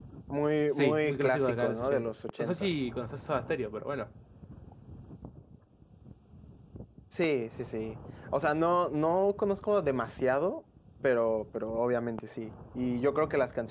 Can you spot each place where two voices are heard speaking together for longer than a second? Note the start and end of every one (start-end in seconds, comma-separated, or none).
0.8-2.7